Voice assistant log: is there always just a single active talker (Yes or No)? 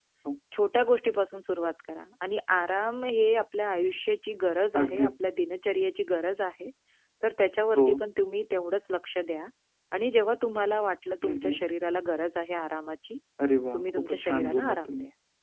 No